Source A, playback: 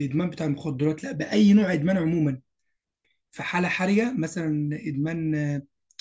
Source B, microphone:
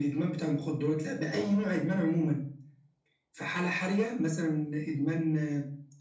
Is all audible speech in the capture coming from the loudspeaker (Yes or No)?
Yes